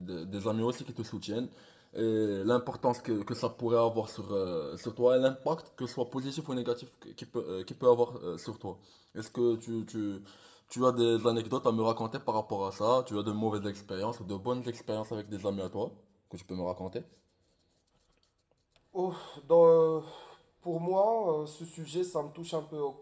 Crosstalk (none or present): none